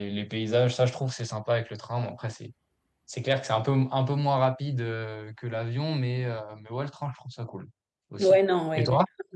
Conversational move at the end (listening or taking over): taking over